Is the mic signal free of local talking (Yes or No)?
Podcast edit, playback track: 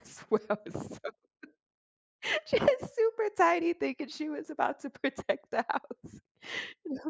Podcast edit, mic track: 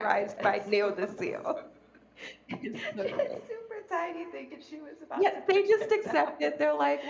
No